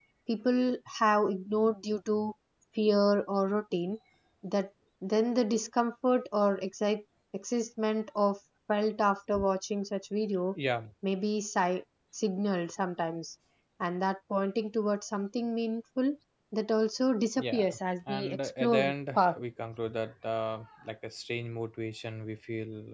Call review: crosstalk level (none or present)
present